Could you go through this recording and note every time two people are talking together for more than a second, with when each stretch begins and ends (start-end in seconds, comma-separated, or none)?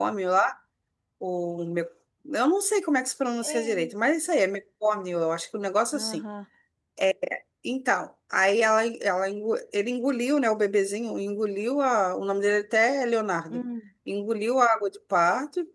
none